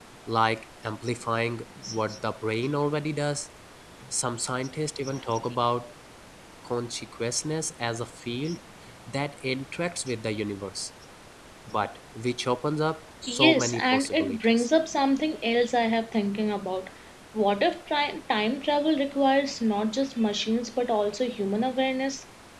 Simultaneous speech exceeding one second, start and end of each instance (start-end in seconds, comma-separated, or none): 13.3-14.7